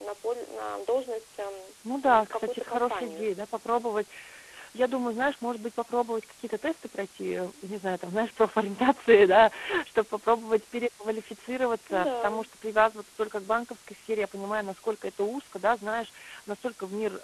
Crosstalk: present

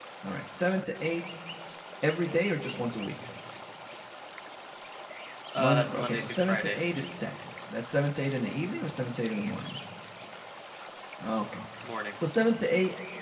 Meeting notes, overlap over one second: present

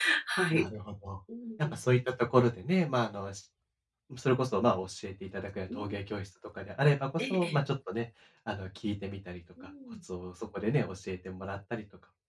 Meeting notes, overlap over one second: none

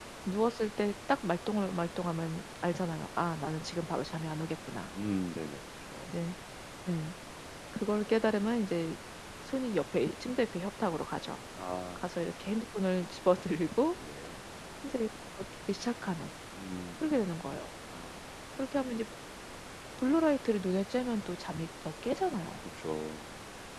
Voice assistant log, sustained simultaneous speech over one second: none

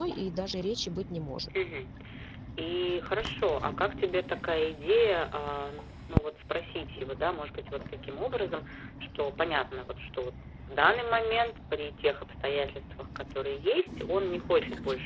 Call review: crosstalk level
none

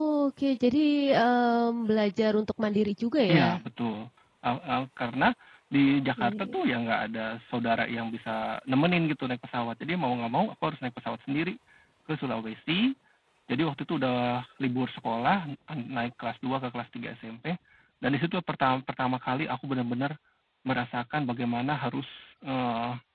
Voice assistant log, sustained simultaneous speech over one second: none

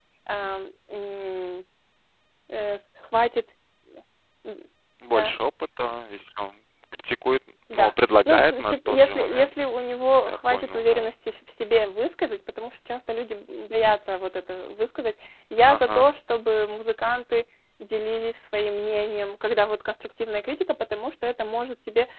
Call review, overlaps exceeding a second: present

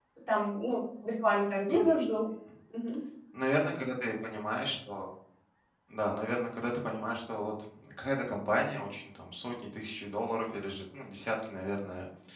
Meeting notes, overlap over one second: none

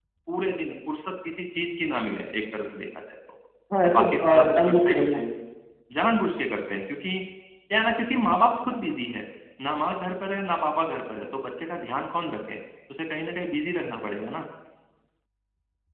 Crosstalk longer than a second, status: present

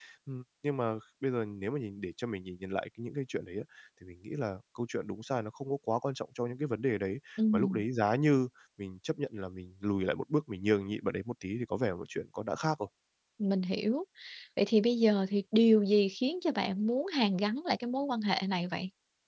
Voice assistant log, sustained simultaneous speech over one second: none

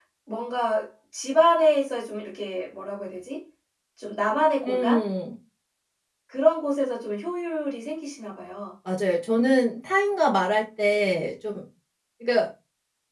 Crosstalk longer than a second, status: none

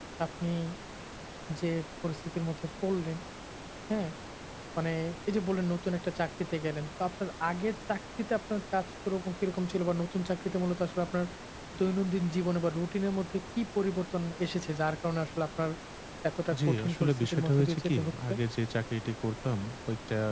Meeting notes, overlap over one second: present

